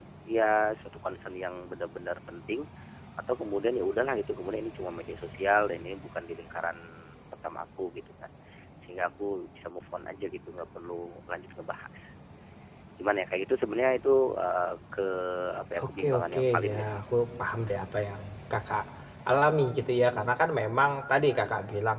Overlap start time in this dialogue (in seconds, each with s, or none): 15.8 s